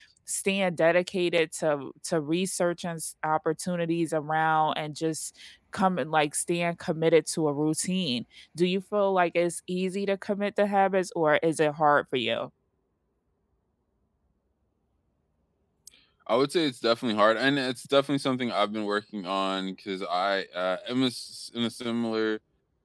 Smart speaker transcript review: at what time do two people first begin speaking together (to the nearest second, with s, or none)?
none